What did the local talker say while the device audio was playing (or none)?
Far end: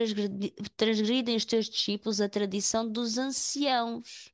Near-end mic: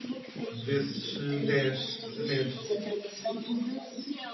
desses dez mandamentos,